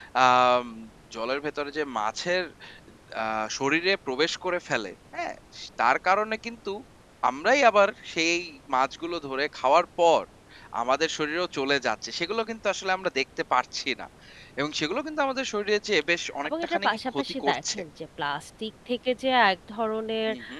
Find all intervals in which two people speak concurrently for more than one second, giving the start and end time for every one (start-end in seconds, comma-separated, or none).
16.4-17.8